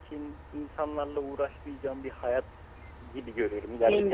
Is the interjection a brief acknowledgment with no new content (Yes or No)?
Yes